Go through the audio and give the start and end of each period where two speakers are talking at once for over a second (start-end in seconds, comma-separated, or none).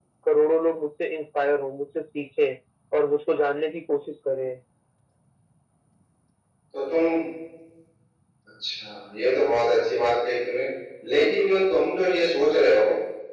none